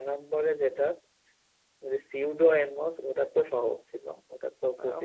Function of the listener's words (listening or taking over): taking over